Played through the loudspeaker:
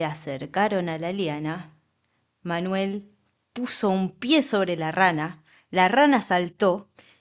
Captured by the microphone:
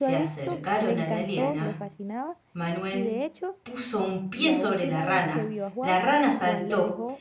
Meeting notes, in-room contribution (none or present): present